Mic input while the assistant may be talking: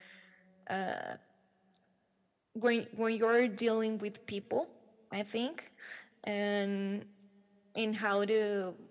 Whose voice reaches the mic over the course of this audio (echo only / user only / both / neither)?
echo only